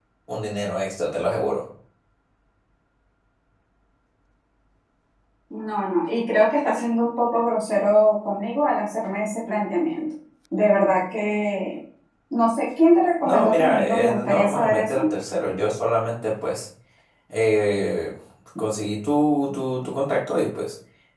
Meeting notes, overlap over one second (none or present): present